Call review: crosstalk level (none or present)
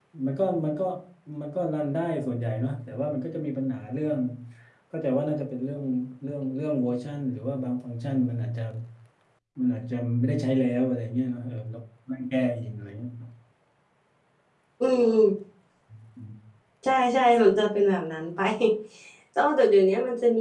none